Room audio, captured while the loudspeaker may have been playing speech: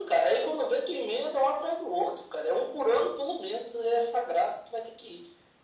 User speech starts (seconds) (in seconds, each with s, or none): none